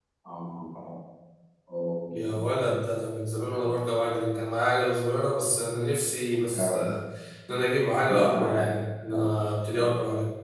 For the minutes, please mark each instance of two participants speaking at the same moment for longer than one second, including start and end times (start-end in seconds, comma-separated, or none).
none